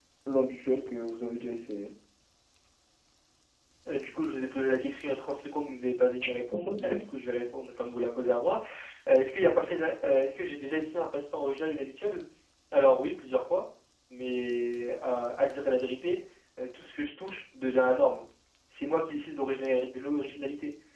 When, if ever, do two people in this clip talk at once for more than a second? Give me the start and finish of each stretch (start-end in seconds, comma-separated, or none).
none